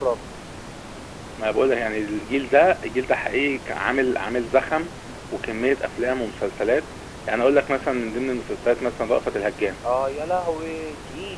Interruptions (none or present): none